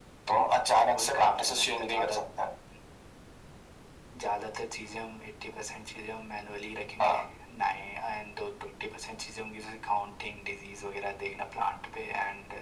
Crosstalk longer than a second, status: present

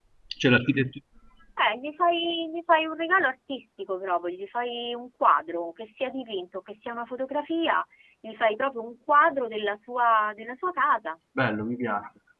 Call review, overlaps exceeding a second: none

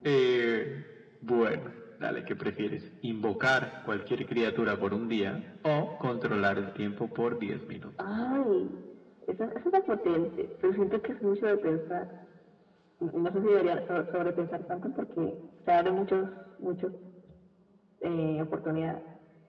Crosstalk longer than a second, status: none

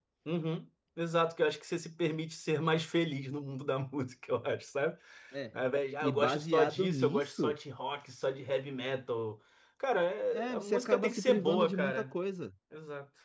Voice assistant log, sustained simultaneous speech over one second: present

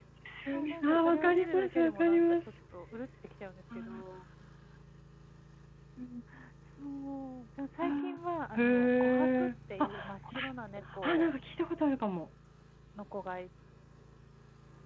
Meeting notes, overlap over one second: present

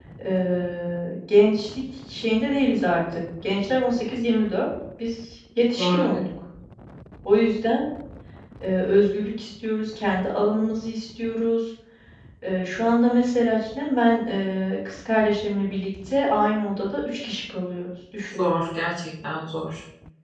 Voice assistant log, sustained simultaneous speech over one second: none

